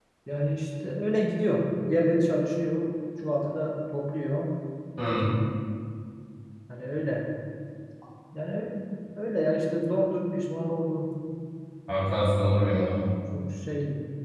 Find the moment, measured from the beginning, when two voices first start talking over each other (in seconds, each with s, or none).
none